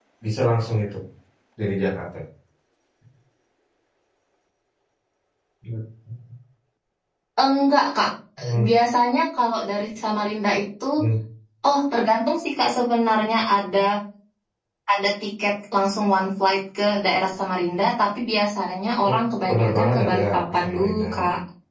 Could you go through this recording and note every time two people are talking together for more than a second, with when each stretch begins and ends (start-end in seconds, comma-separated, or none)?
19.5-21.1